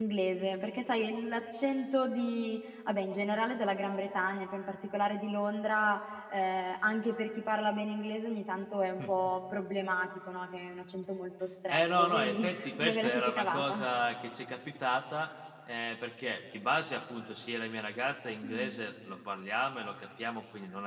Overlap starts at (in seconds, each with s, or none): 11.7 s